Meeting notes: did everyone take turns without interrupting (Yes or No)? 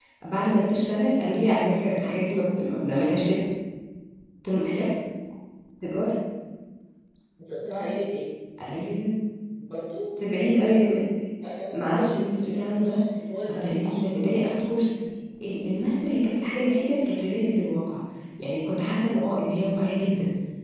No